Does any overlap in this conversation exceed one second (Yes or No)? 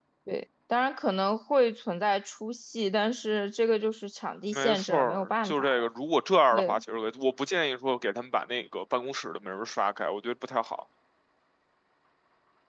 Yes